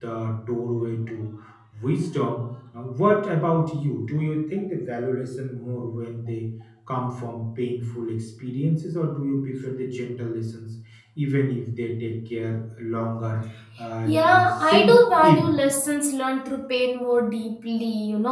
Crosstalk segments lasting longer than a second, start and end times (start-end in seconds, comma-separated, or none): 14.1-15.5